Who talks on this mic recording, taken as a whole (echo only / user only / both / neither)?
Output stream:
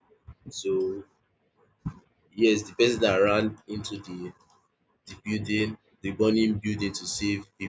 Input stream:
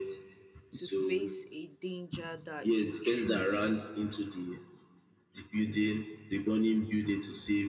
both